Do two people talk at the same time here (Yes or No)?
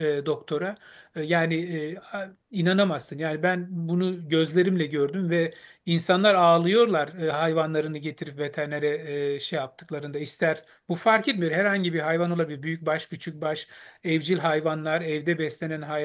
No